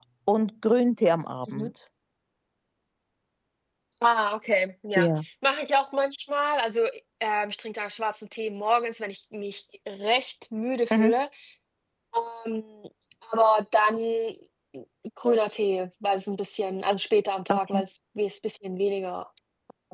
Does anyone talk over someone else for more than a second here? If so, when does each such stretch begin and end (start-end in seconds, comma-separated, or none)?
none